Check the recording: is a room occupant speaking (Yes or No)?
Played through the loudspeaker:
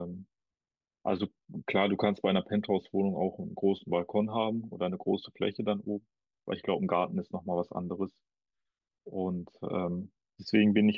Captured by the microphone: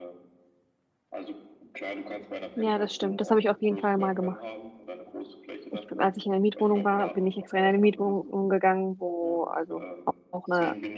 Yes